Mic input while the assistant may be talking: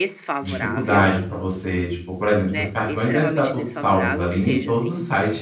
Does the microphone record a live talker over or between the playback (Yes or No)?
Yes